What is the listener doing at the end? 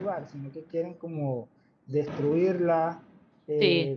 listening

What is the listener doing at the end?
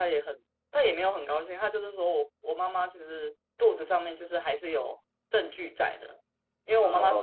taking over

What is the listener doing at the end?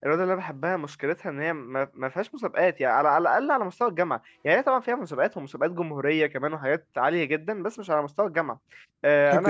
listening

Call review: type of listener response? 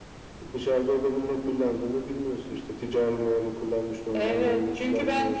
taking over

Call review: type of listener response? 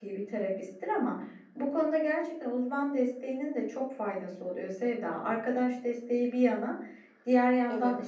listening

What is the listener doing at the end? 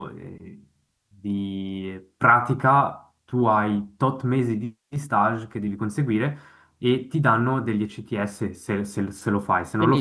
taking over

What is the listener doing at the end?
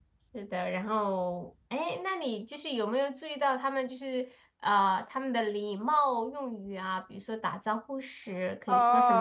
taking over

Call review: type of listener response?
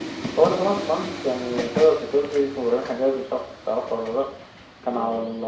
listening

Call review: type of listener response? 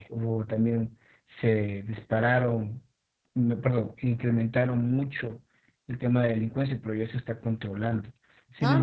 listening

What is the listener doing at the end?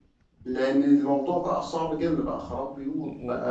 taking over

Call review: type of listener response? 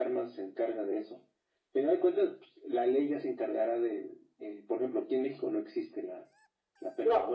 taking over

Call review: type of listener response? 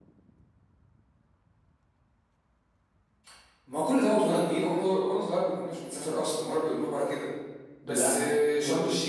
listening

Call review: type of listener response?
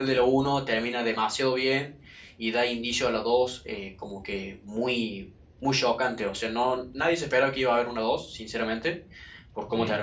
listening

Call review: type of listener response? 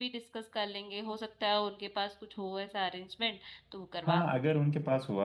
taking over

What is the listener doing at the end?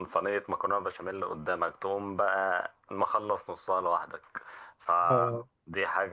listening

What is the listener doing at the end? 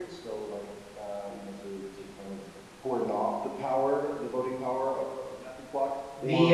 taking over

